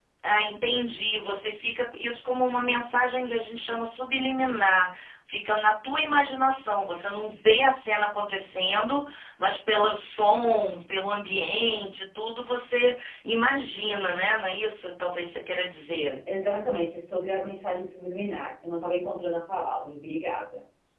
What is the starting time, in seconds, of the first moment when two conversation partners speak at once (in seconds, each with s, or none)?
none